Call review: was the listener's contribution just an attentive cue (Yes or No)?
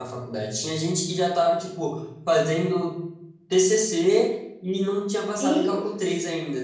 Yes